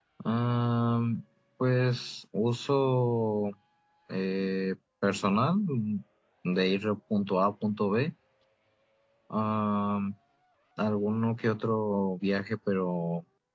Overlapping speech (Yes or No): No